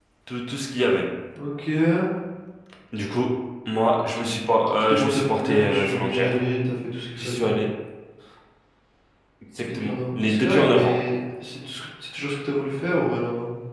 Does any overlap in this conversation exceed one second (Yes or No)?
Yes